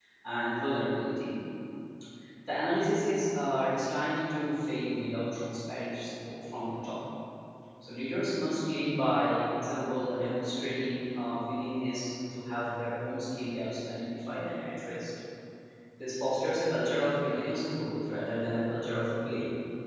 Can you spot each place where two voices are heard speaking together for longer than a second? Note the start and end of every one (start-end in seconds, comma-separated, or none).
none